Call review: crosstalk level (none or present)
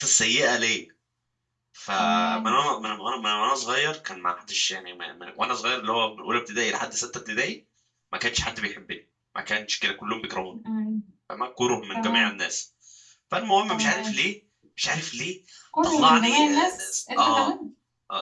present